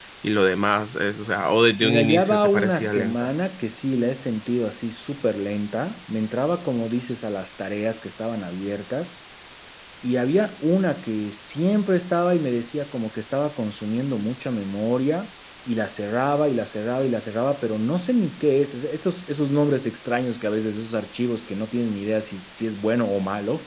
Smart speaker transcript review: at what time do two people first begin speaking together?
1.8 s

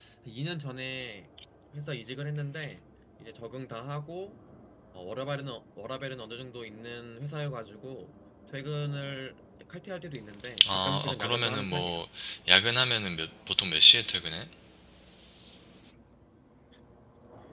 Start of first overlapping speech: 10.6 s

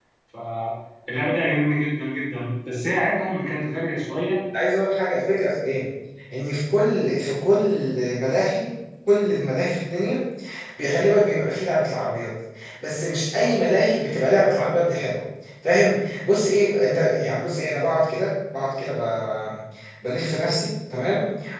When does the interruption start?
none

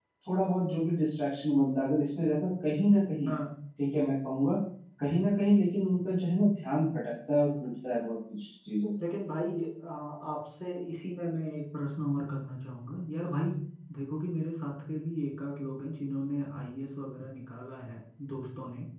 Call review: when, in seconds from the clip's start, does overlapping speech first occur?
none

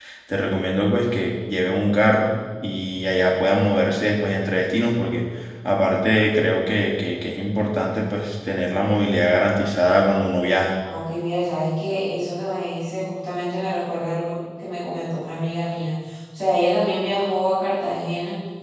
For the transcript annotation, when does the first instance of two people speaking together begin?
none

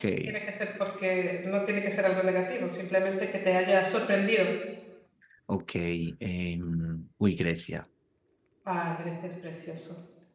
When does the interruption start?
none

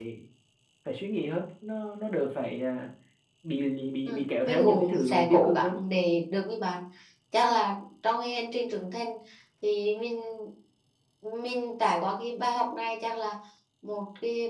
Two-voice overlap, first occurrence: 4.1 s

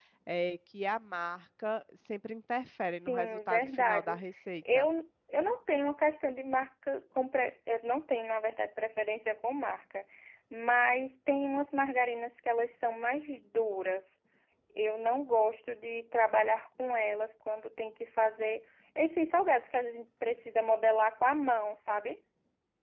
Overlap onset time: 3.0 s

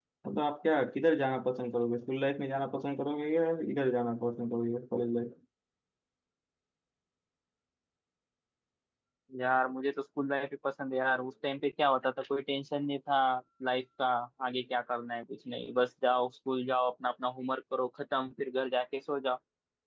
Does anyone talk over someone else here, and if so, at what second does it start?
none

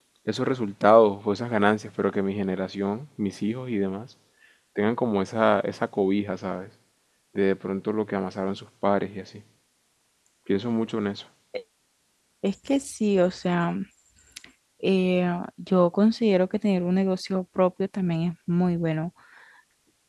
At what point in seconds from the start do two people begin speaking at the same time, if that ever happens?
none

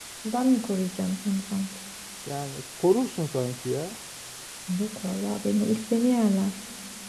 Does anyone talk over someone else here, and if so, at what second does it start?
none

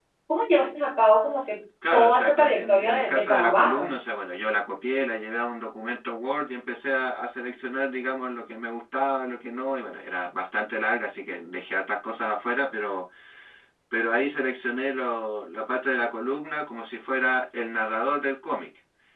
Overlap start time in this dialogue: 1.8 s

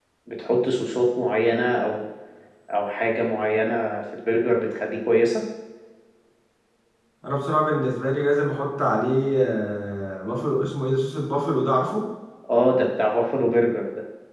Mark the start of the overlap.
none

